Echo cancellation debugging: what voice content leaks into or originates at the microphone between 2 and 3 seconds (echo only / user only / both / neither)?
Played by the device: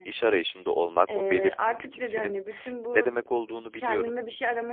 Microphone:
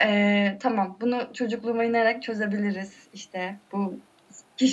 user only